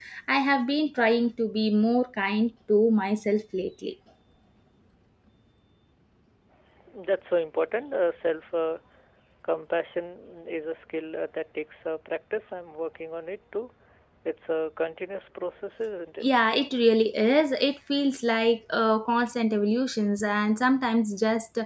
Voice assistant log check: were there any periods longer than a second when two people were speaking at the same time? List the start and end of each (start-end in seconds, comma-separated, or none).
none